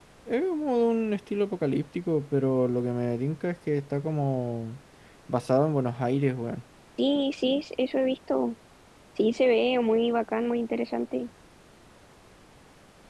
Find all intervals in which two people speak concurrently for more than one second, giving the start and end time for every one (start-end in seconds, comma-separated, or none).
none